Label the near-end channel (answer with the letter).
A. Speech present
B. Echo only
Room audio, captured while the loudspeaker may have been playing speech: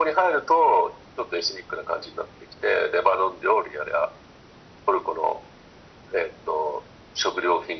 B